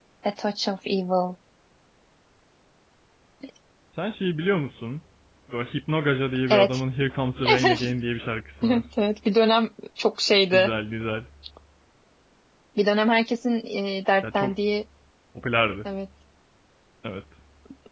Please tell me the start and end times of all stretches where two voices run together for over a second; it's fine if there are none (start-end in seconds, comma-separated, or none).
none